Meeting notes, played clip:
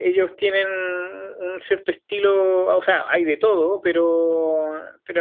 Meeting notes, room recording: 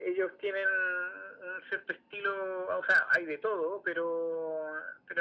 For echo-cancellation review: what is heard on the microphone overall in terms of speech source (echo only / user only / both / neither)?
echo only